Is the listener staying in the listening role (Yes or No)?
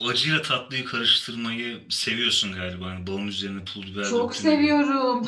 No